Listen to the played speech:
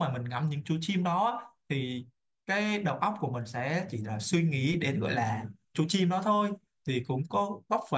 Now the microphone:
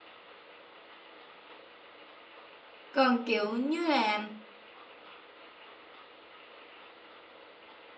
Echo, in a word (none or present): none